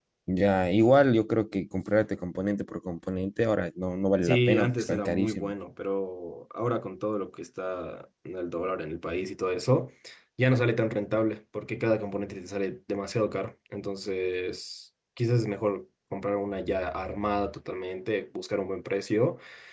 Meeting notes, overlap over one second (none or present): present